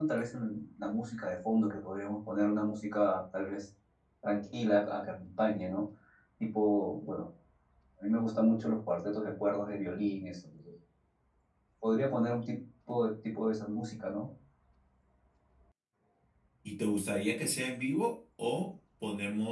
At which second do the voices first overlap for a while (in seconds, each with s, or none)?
none